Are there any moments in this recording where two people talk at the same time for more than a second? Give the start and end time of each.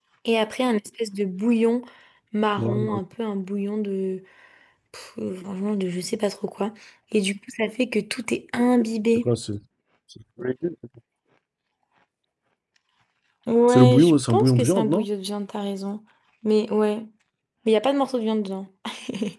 13.7-15.1

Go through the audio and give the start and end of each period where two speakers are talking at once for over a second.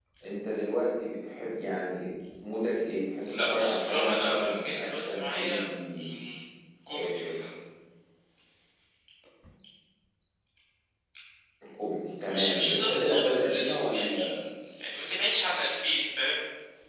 3.4-5.6, 12.3-14.3

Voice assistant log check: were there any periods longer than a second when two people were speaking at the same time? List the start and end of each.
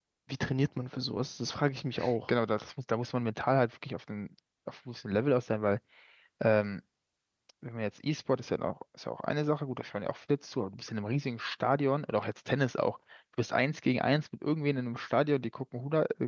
none

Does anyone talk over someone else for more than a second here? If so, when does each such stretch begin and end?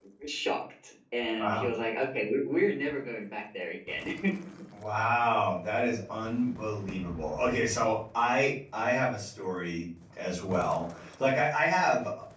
none

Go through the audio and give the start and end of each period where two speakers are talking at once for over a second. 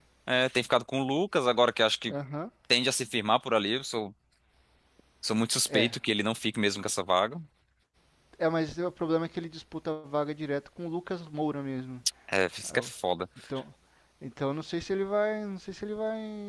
none

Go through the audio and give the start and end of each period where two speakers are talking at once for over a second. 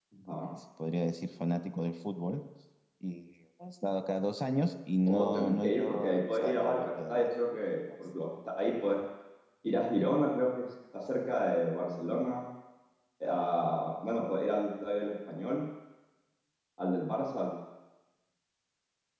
5.0-7.3

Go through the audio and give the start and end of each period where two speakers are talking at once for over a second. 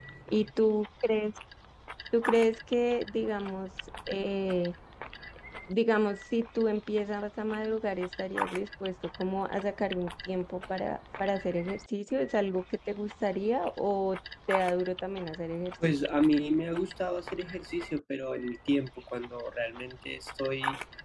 none

